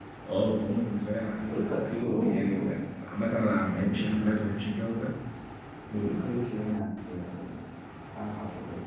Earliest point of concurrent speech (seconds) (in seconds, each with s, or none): 1.4 s